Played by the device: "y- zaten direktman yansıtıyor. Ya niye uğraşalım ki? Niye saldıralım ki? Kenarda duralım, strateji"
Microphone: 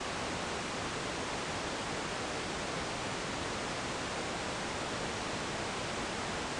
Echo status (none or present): none